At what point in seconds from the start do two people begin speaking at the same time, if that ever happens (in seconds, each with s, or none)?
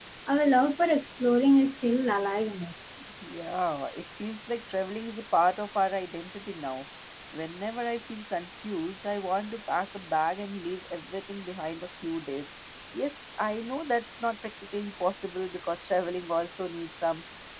none